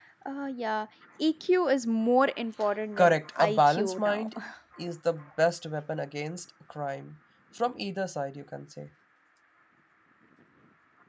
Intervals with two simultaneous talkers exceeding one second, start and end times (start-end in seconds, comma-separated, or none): 3.0-4.3